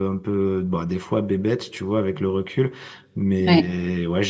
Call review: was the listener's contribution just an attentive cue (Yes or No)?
Yes